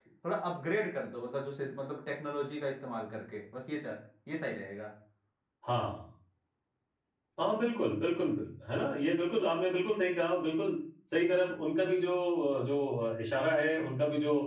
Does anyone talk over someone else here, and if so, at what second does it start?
none

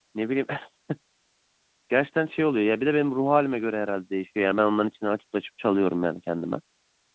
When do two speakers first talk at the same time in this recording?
none

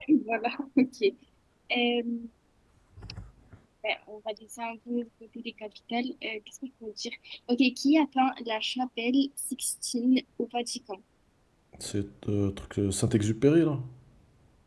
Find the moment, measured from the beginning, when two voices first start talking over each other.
none

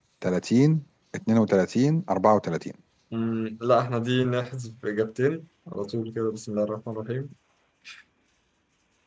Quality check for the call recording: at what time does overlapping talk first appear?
none

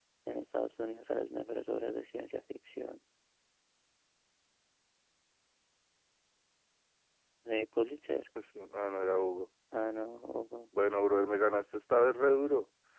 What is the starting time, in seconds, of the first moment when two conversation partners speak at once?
none

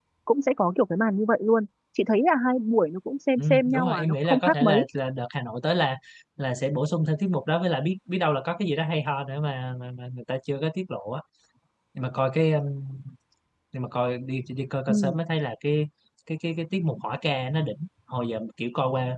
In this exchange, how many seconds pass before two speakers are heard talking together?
3.4 s

